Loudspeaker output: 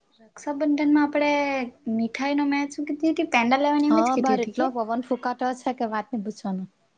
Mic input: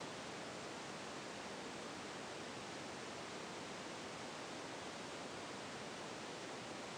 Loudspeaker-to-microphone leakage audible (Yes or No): No